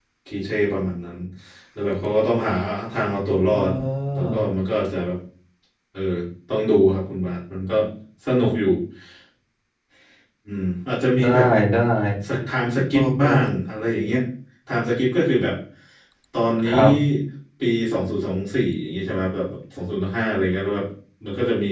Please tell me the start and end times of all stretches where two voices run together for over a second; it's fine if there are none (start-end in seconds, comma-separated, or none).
none